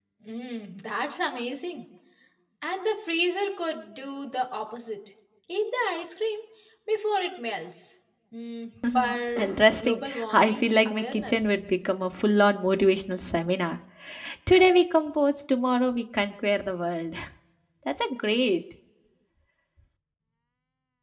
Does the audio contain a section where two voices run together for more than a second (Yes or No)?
Yes